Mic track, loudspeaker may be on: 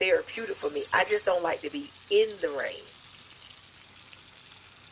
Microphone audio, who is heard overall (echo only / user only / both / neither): echo only